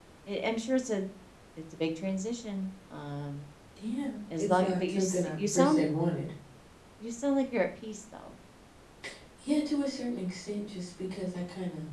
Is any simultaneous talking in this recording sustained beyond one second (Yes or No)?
Yes